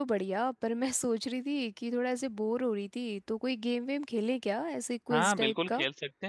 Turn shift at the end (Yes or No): Yes